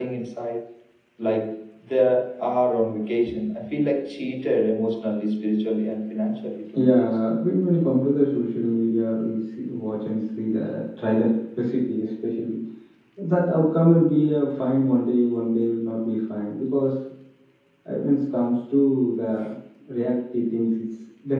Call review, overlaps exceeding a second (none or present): none